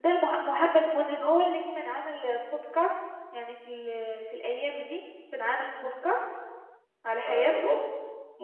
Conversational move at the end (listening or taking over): taking over